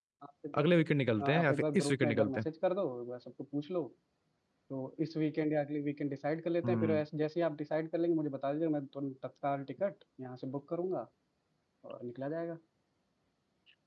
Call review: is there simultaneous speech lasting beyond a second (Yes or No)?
Yes